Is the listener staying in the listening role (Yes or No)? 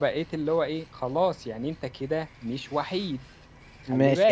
No